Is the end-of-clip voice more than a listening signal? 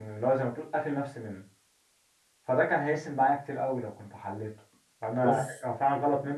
No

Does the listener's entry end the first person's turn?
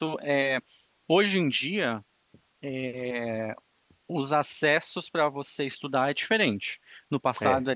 No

